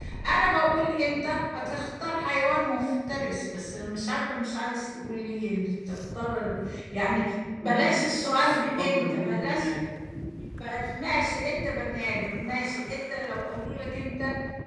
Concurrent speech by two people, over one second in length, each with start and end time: 8.4-9.7

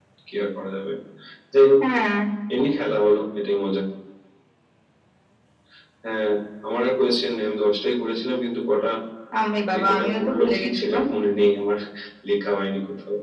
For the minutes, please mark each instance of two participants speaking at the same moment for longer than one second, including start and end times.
9.7-11.0

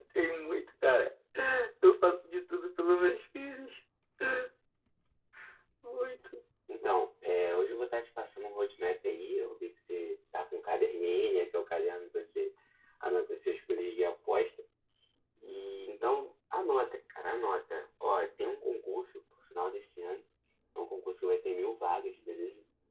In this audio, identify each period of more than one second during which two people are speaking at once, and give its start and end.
none

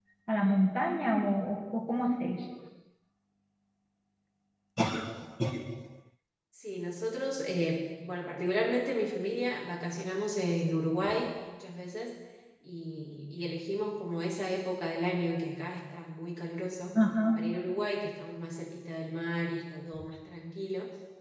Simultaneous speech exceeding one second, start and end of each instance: none

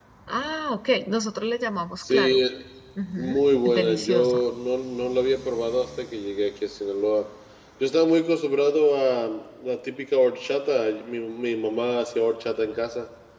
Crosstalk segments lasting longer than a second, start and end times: 3.2-4.4

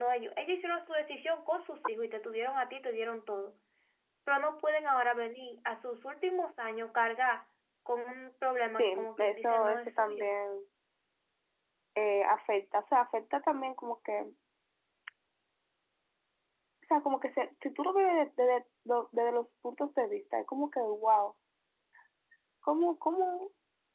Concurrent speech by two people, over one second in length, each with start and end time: 8.8-10.4

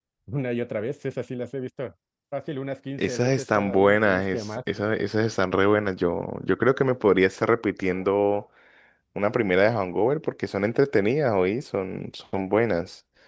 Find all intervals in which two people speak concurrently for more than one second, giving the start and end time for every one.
3.0-4.5

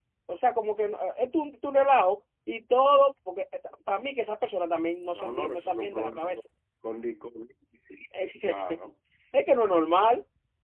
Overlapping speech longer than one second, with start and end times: 5.1-6.4

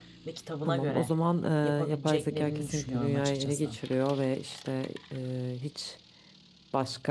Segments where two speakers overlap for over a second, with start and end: 1.8-3.7

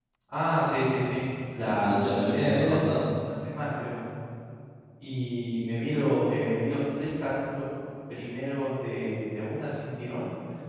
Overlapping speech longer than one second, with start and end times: 1.8-3.1

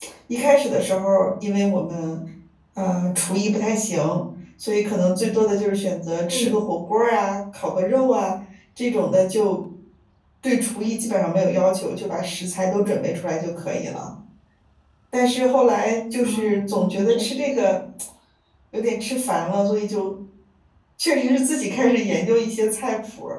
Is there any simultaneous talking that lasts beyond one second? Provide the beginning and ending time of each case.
16.2-17.7

